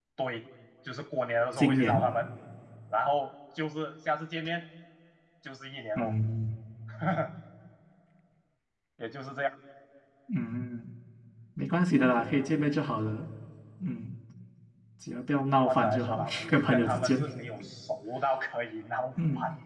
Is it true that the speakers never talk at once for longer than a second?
No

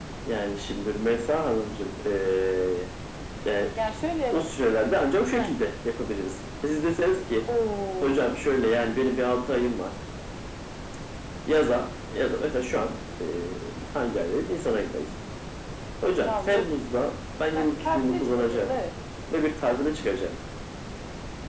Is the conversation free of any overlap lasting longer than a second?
No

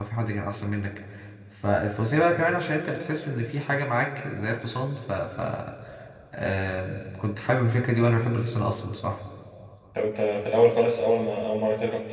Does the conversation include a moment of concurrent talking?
No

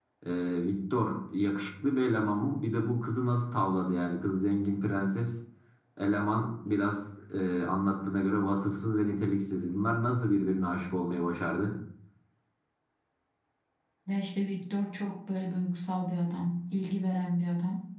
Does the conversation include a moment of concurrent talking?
No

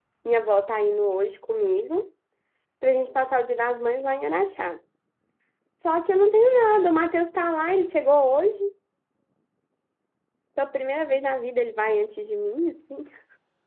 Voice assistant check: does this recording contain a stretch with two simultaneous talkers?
No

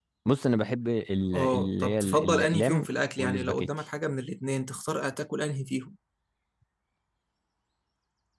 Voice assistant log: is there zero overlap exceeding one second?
No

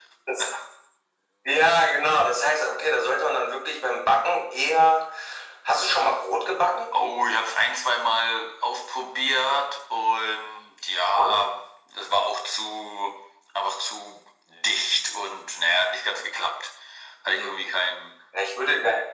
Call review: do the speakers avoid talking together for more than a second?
Yes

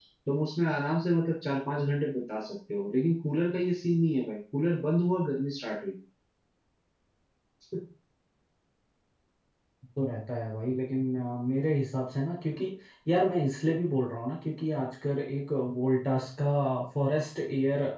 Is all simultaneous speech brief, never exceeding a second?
Yes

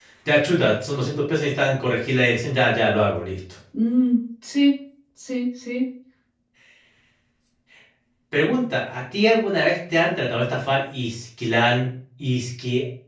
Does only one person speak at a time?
Yes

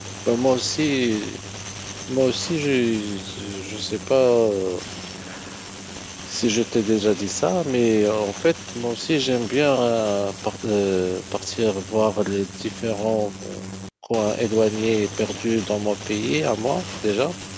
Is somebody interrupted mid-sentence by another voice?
No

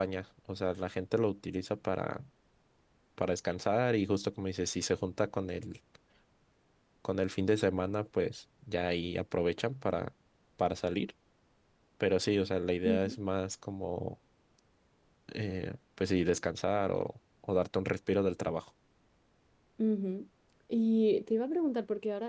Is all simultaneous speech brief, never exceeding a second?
Yes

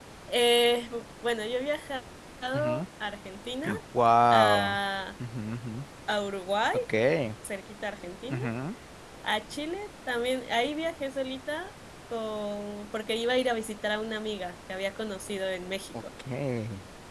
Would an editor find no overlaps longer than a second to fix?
Yes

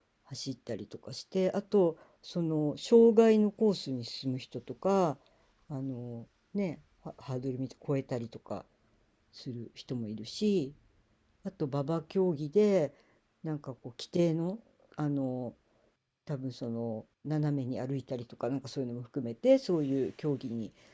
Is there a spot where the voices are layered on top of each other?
No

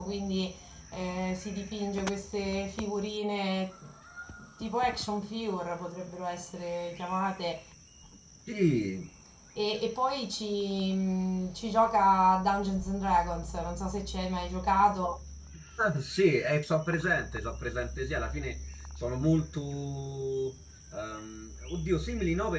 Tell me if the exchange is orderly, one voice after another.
Yes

